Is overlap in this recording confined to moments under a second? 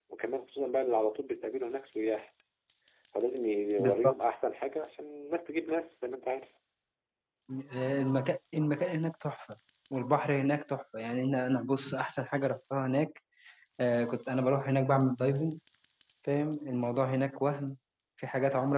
Yes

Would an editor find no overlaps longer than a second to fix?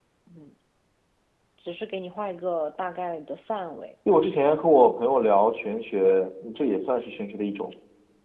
Yes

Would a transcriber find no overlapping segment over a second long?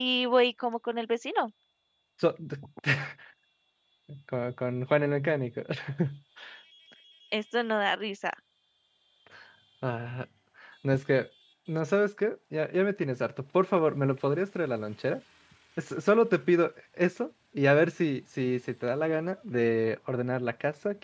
Yes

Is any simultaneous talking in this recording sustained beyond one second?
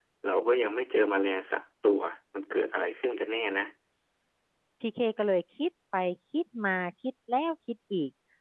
No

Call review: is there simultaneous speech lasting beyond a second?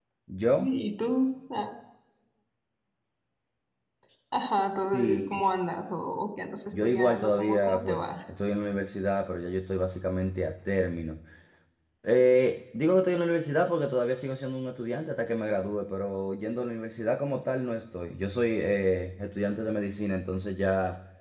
Yes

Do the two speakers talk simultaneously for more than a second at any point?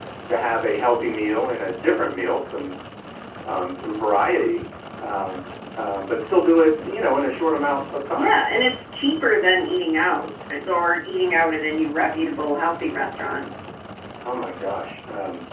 No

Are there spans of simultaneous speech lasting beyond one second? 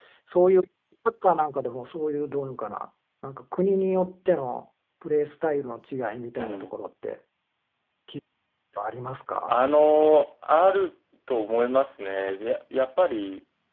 No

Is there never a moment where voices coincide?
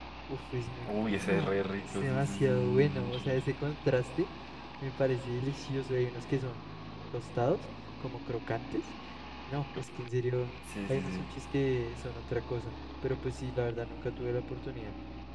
No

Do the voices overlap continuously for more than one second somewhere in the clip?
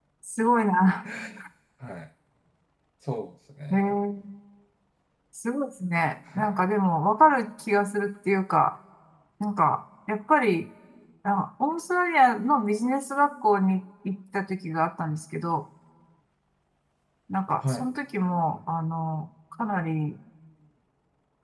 No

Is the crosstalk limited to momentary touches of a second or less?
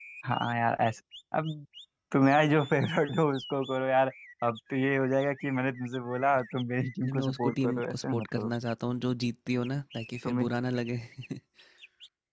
No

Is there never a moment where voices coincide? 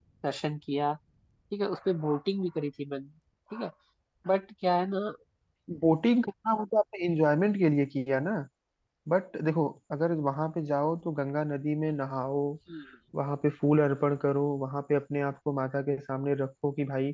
Yes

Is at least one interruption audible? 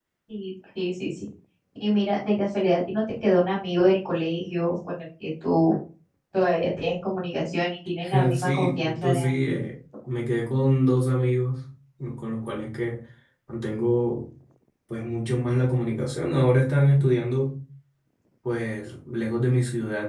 Yes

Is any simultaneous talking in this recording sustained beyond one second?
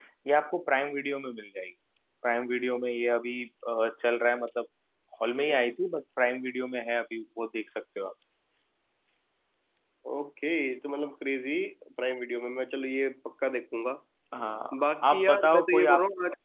Yes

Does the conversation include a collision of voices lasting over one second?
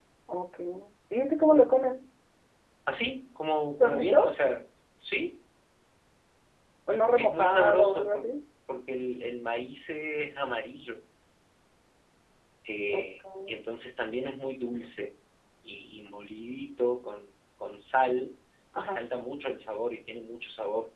Yes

